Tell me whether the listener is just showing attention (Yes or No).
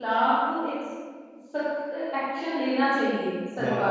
No